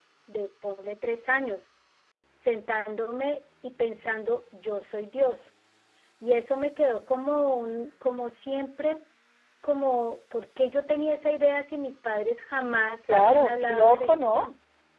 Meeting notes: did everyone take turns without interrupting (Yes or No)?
No